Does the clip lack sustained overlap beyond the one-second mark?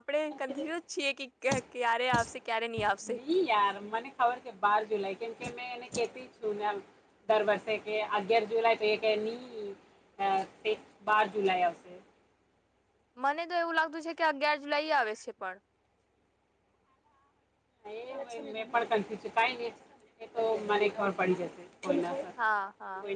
Yes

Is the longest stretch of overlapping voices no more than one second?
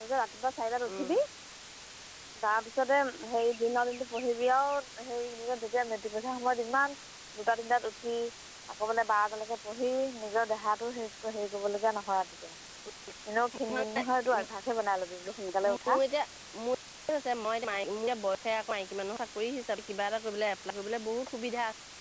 Yes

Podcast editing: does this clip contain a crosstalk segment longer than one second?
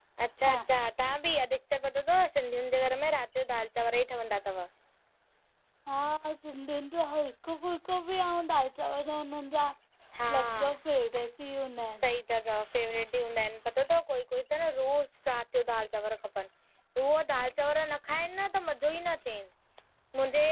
No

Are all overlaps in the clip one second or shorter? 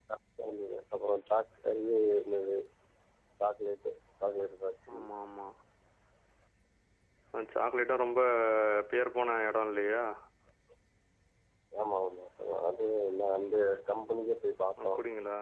Yes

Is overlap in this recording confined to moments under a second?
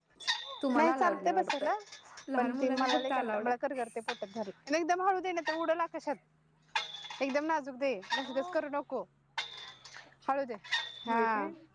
No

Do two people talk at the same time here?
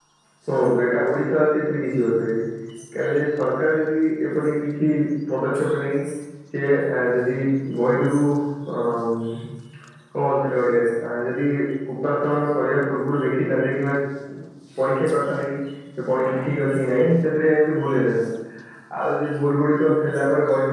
No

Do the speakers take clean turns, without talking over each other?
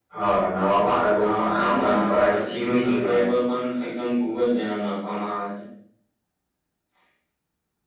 No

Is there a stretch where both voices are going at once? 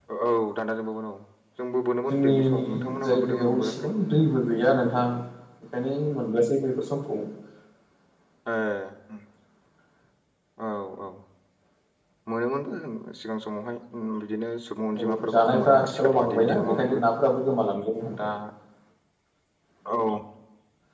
Yes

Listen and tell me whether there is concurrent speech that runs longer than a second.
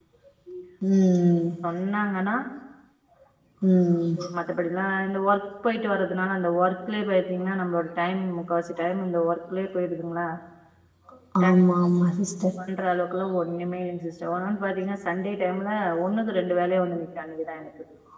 No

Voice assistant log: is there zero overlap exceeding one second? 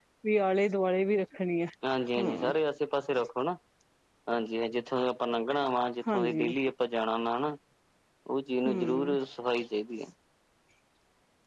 Yes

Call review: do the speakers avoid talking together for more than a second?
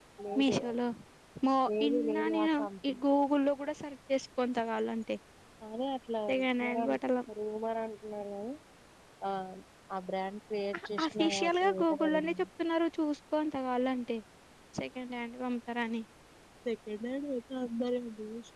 No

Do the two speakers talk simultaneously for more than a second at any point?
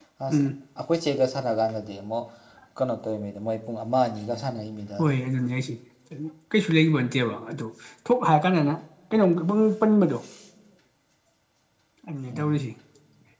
No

